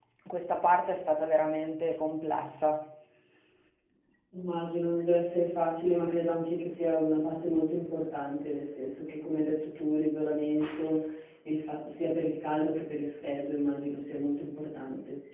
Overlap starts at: none

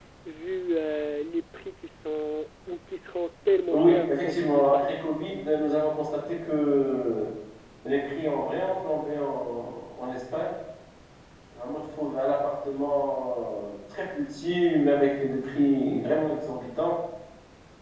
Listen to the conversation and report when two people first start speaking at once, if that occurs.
3.7 s

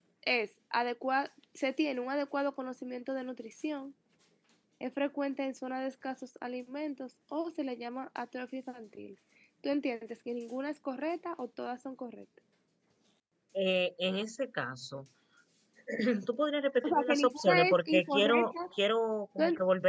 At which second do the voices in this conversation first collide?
16.8 s

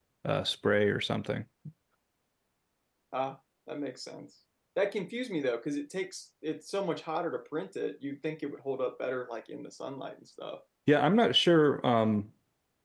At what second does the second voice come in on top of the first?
none

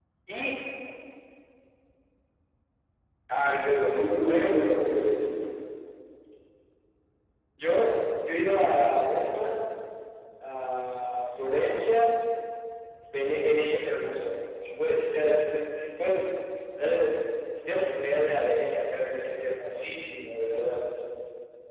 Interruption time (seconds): 3.9 s

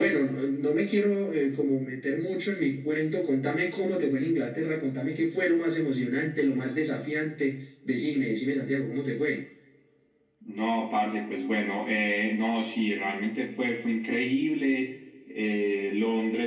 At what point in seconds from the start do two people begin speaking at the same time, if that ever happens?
none

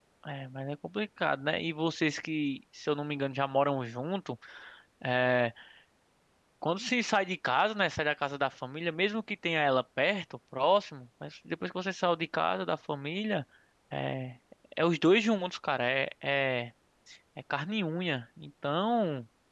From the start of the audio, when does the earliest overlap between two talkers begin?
none

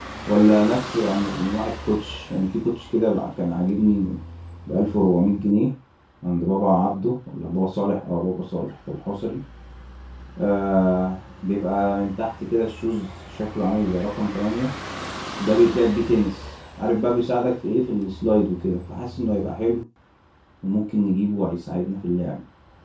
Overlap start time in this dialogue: none

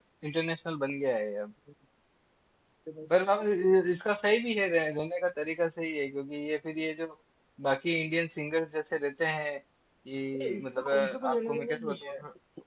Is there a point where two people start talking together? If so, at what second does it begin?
10.4 s

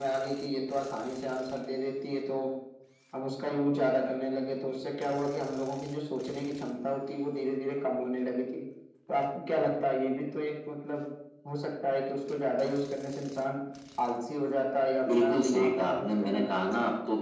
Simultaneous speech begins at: 15.1 s

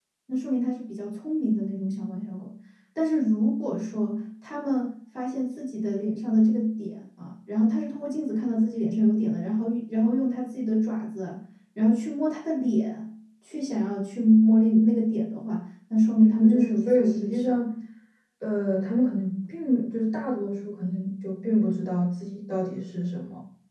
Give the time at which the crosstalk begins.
16.2 s

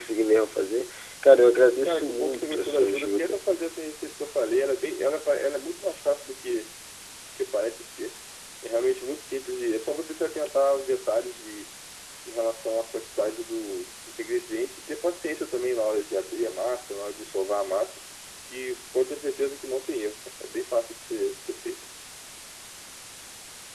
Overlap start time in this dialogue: 1.8 s

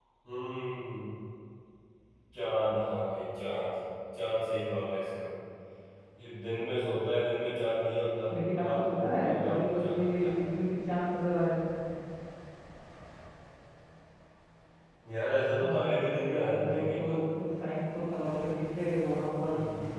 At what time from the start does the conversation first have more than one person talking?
8.3 s

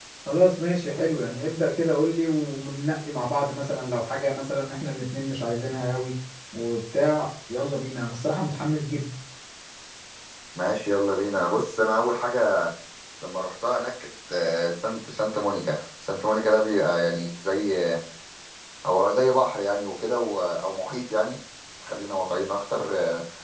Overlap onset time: none

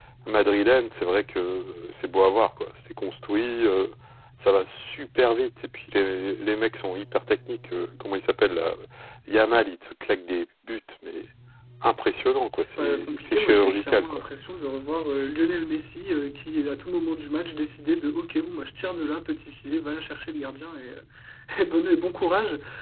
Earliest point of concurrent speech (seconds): 12.8 s

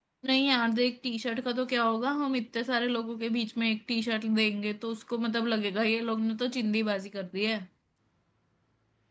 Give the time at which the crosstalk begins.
none

